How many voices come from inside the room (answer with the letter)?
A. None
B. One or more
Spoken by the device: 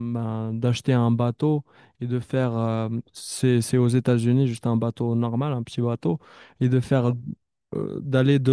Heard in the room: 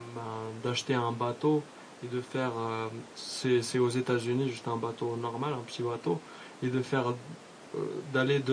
A